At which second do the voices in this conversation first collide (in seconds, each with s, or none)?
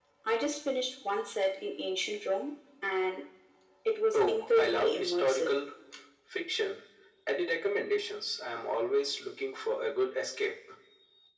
4.1 s